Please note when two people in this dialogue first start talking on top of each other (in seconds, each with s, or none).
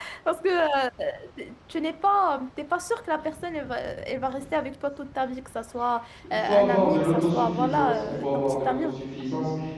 6.2 s